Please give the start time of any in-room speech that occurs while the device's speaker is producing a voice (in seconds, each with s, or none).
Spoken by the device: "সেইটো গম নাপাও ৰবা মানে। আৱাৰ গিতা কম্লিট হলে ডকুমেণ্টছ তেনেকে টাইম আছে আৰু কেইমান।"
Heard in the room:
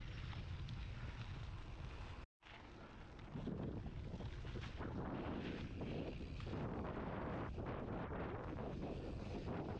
none